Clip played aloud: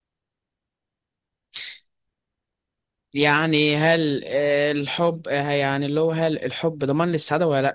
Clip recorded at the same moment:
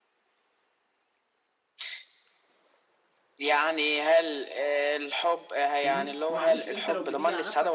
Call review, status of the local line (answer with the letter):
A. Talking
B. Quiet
A